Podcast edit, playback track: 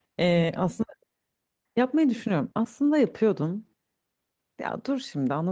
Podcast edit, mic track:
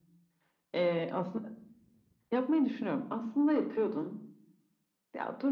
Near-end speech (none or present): none